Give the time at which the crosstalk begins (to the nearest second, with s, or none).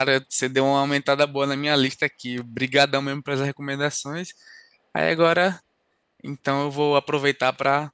none